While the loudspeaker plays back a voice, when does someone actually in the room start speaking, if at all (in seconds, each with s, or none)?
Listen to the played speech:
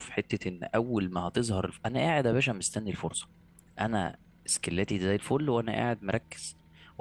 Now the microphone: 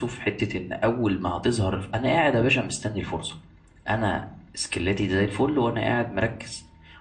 none